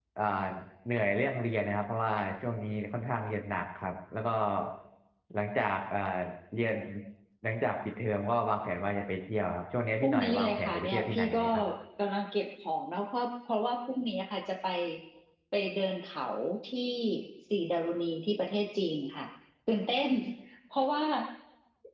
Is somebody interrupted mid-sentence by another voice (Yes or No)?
Yes